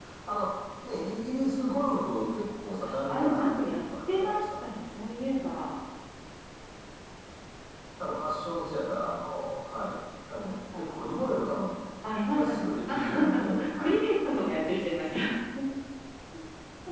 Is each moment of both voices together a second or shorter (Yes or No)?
No